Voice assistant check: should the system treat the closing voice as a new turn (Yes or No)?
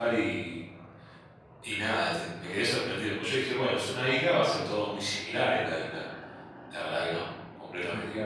No